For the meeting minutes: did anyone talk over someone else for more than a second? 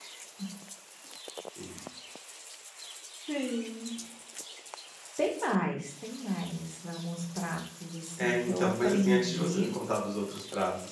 Yes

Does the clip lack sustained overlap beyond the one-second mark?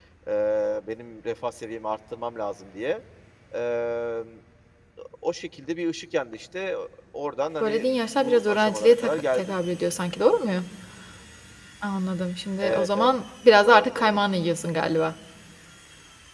No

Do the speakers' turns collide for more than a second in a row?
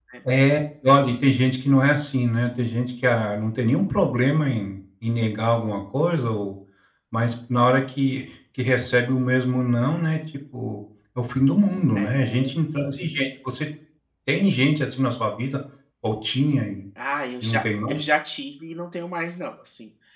No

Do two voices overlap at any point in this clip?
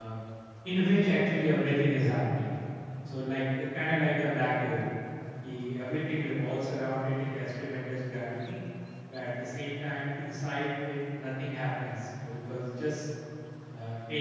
No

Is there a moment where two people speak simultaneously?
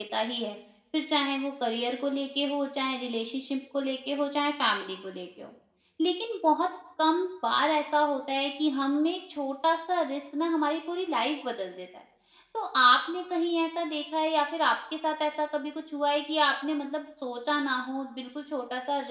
No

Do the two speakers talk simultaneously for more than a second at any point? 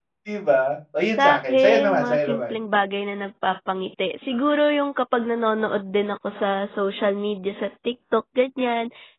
Yes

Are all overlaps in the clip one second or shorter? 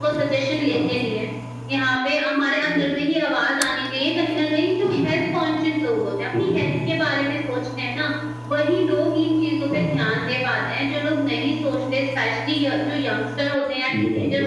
Yes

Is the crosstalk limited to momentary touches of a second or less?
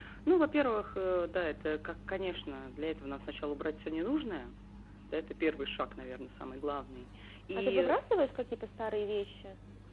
Yes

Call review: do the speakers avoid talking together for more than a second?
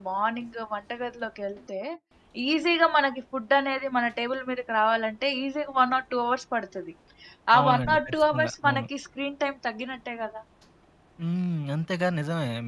No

